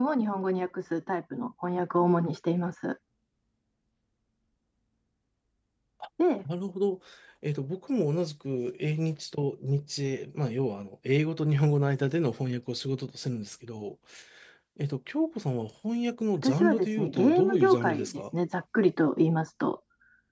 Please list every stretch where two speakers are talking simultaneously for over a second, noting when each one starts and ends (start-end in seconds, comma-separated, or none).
16.4-18.2